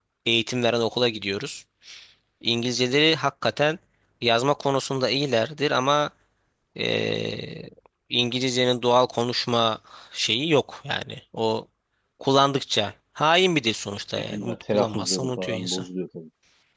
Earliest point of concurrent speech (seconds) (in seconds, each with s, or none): 14.2 s